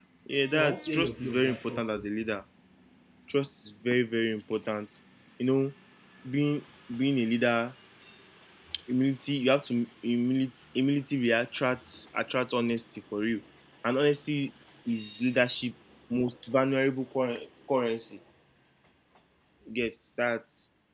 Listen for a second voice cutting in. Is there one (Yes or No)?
Yes